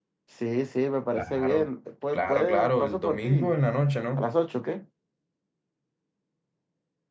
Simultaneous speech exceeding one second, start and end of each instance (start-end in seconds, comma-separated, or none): 2.1-3.5